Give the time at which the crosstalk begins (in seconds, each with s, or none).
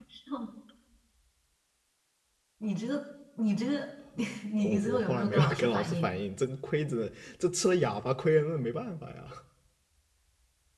4.6 s